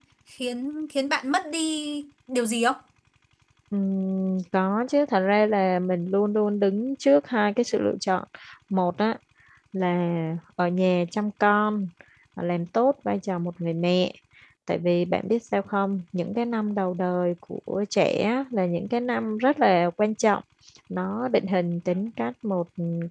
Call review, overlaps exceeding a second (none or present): none